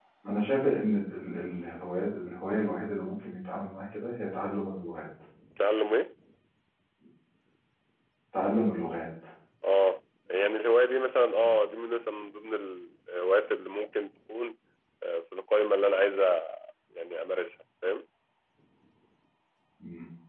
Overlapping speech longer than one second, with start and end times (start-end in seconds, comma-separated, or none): none